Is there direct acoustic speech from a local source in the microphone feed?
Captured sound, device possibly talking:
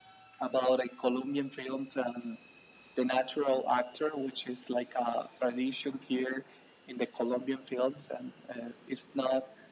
No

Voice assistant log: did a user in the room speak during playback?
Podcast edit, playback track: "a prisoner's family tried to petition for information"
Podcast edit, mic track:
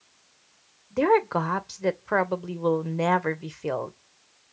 Yes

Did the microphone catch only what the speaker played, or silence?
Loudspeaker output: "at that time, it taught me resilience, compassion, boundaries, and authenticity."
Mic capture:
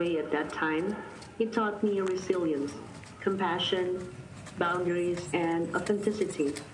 Yes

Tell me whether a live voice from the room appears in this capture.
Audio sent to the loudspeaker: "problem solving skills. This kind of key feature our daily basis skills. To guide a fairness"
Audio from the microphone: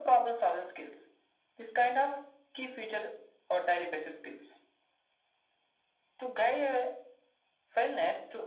No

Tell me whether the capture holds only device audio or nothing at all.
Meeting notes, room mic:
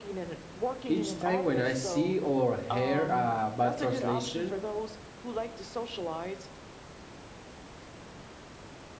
No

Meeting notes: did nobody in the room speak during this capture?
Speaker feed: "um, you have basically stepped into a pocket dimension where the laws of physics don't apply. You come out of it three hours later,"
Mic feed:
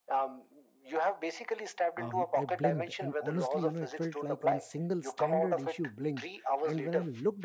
No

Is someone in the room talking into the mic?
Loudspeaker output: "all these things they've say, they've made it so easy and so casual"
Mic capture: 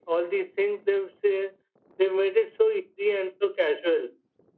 No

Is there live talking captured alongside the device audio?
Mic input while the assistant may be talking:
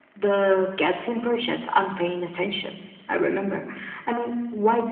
No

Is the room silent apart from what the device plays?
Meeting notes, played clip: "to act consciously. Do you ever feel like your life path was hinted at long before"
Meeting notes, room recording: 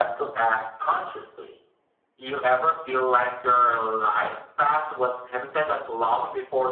Yes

